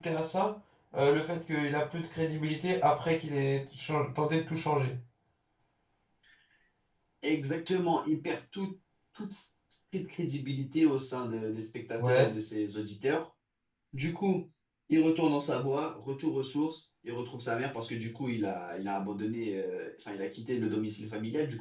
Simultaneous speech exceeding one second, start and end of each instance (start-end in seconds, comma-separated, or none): none